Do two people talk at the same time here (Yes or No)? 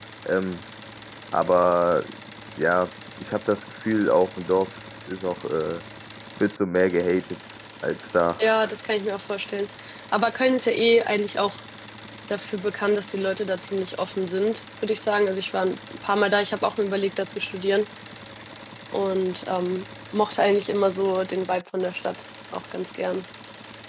No